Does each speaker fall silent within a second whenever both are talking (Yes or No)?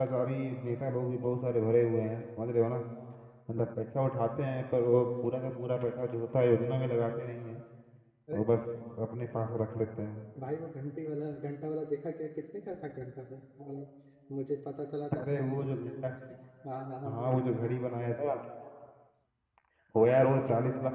Yes